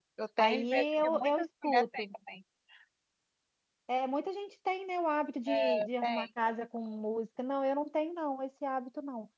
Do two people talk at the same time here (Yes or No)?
Yes